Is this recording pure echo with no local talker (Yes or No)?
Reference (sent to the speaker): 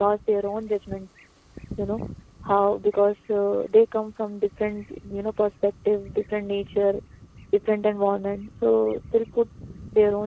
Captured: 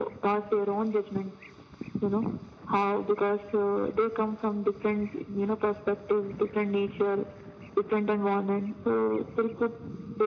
Yes